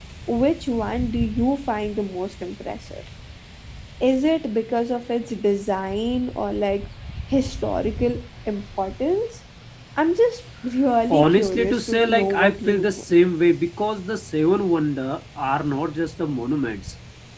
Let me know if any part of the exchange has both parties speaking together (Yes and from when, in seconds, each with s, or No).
Yes, from 11.1 s